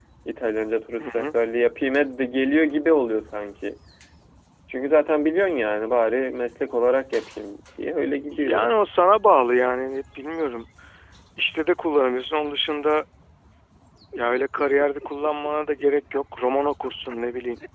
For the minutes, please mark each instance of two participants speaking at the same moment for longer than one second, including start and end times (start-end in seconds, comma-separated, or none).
none